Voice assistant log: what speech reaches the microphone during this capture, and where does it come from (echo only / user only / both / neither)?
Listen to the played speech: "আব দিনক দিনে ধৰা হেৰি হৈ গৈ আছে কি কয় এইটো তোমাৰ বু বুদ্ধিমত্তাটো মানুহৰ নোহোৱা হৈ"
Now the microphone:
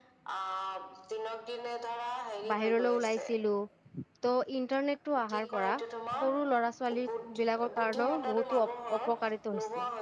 both